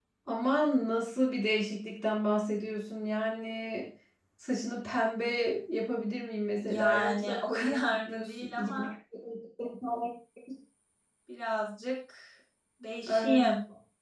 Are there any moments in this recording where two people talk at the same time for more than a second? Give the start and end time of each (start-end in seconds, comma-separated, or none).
6.6-8.8